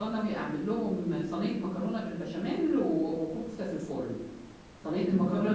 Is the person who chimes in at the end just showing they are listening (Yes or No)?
Yes